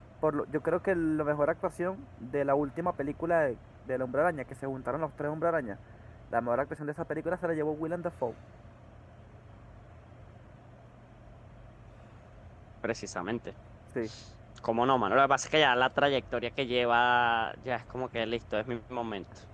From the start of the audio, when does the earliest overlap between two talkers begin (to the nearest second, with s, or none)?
none